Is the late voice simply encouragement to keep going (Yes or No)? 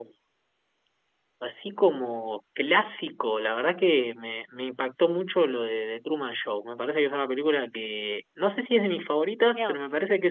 Yes